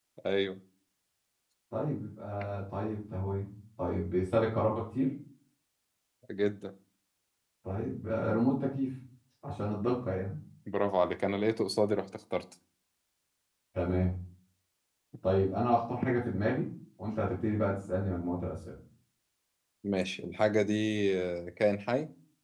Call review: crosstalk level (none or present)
none